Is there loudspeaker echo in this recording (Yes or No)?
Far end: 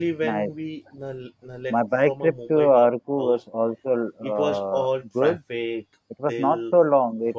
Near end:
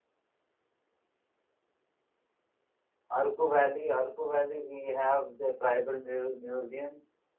No